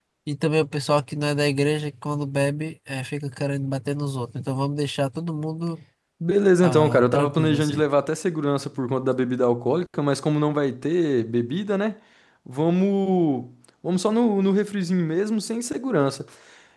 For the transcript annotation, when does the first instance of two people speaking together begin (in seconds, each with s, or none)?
6.6 s